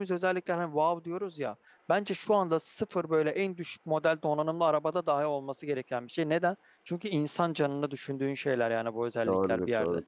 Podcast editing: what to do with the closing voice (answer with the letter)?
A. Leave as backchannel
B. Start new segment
B